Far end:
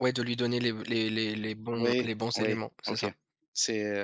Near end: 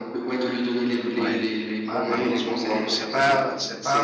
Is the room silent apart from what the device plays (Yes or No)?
No